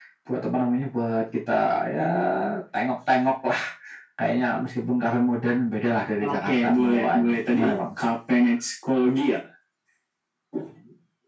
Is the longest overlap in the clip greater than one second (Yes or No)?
Yes